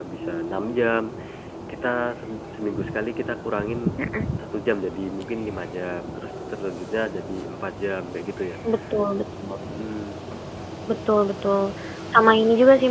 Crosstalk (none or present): none